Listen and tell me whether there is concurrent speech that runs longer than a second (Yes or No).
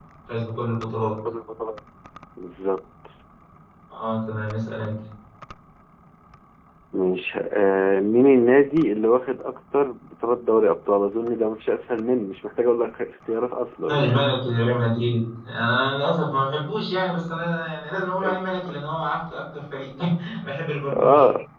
No